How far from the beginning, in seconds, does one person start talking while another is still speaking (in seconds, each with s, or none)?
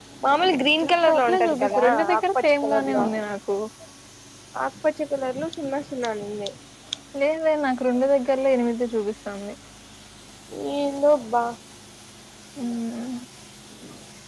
0.9 s